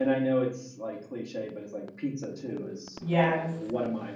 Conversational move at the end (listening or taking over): listening